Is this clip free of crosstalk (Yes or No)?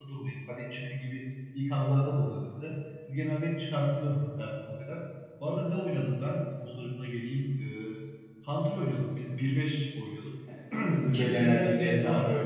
No